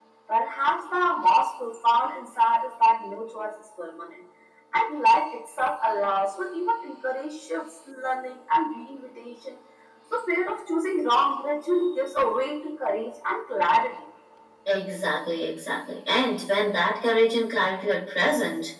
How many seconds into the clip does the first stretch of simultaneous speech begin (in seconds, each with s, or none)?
none